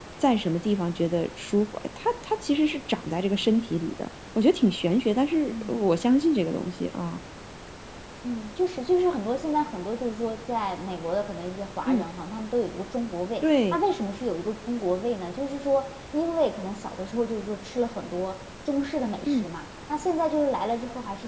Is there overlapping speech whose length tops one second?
No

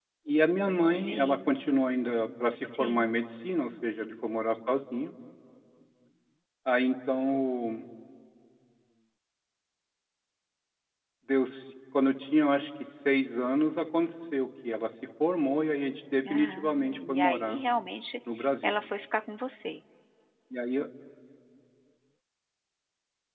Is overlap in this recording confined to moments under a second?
No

